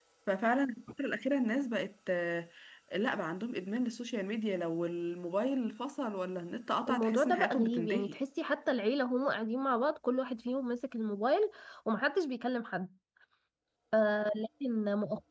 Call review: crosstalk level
present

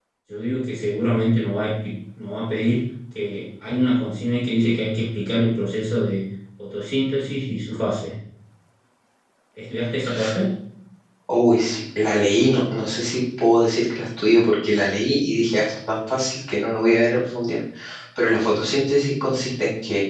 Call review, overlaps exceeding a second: none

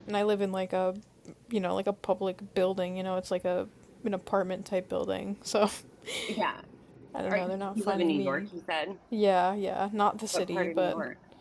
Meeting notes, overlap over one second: present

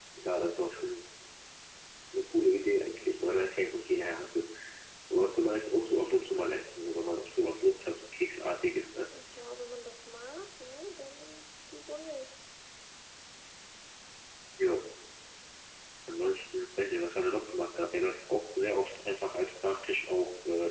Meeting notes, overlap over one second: none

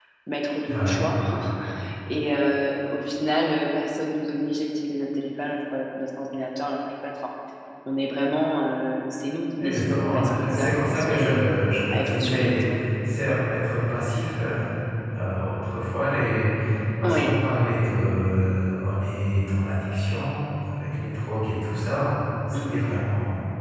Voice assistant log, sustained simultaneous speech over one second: present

